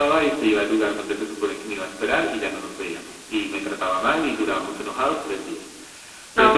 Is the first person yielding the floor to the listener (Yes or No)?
Yes